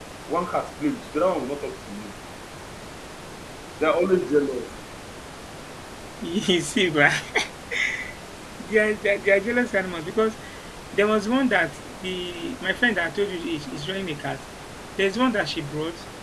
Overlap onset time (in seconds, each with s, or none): none